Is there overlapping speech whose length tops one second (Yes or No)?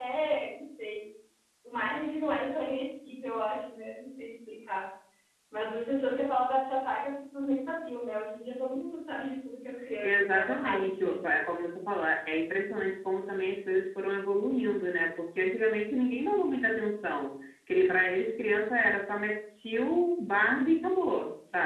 Yes